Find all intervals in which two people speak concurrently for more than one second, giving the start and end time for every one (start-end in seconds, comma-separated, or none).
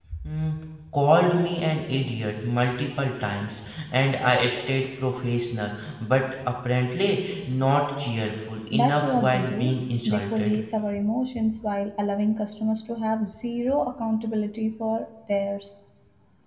8.7-10.6